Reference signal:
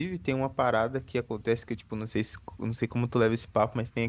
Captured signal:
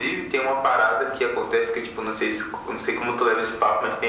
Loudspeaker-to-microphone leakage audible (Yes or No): Yes